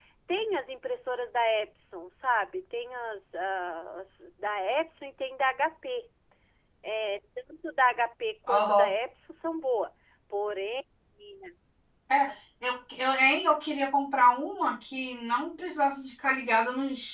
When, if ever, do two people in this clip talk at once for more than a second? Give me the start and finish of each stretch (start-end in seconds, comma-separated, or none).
none